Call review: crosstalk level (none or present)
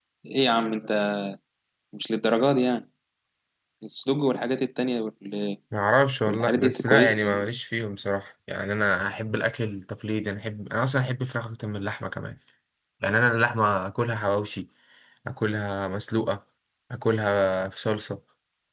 present